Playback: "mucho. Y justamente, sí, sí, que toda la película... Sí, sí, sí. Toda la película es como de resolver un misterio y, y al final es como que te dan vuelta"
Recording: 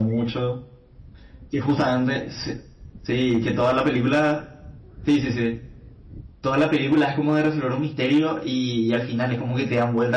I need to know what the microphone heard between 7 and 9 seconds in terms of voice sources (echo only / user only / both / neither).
echo only